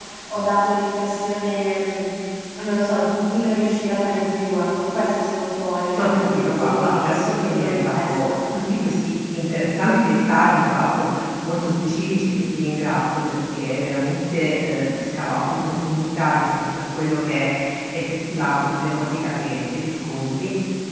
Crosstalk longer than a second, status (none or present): present